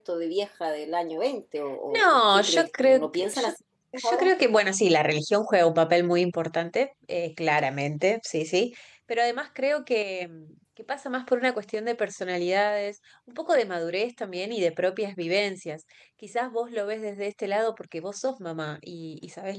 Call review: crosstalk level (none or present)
present